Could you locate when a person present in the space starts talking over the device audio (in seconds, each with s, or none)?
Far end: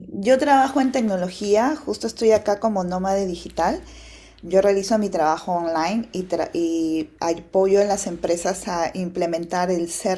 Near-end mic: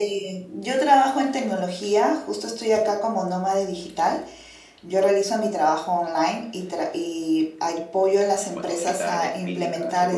8.5 s